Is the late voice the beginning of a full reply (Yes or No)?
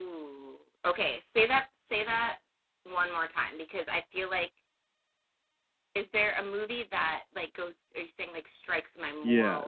Yes